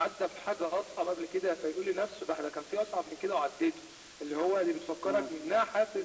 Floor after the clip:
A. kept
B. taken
A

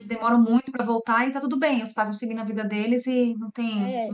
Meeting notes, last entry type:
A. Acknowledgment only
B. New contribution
B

